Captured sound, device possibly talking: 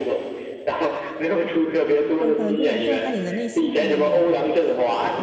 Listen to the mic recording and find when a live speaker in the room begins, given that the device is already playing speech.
2.2 s

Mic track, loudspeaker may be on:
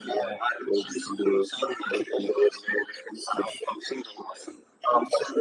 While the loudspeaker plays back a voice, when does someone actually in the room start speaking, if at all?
none

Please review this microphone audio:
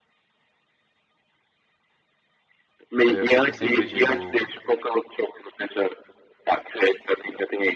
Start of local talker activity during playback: 3.0 s

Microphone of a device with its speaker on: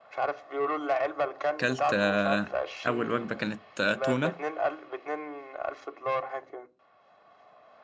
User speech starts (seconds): 1.5 s

